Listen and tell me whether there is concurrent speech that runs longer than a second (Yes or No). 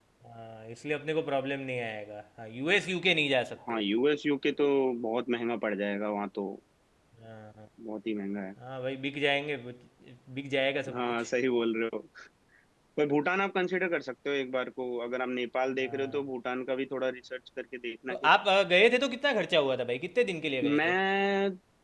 No